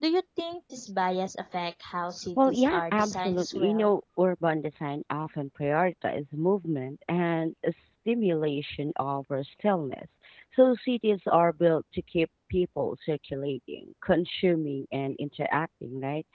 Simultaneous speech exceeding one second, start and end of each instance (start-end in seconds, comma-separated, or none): 2.5-3.9